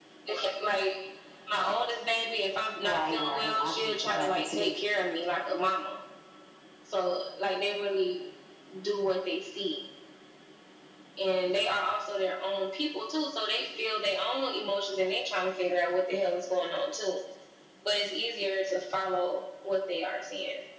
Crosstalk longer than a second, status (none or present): present